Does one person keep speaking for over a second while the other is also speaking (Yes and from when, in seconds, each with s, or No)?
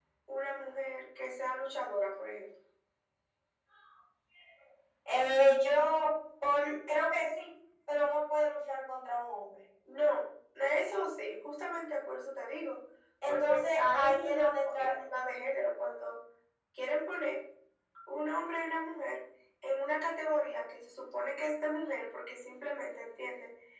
Yes, from 13.3 s